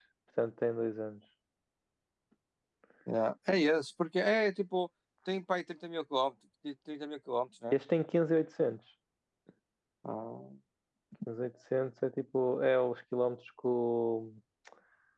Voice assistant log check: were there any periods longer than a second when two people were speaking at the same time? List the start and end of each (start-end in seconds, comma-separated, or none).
none